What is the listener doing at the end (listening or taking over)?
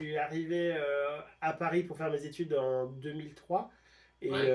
listening